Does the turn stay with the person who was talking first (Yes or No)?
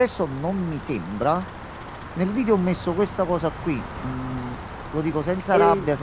Yes